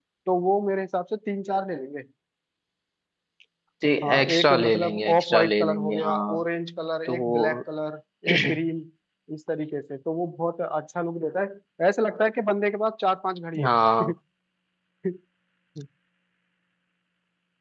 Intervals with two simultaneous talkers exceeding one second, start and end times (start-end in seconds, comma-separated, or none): 4.0-6.3